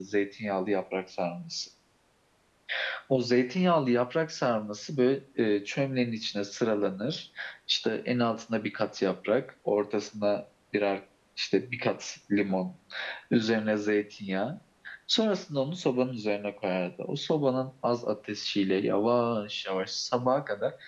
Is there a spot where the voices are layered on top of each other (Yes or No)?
No